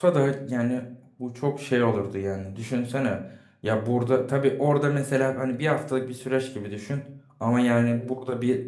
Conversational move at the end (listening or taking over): listening